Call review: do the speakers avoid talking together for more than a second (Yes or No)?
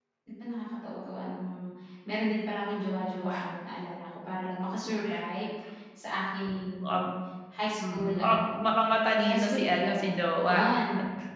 No